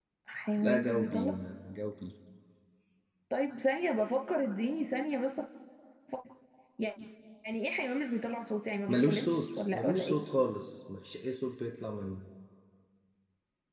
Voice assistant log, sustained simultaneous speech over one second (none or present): present